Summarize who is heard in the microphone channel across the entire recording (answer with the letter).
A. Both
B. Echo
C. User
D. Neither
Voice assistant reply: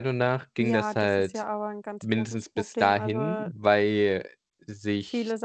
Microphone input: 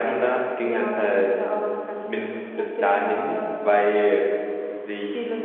B